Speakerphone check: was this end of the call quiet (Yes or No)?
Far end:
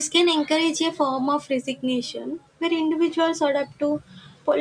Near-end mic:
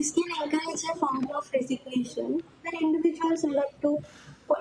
Yes